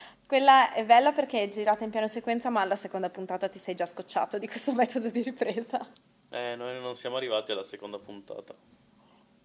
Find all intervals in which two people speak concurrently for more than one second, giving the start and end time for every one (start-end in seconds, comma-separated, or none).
none